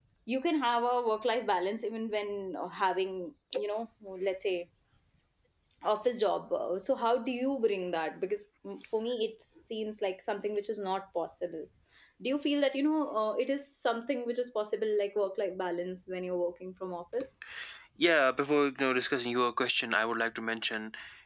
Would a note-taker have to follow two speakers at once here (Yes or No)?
No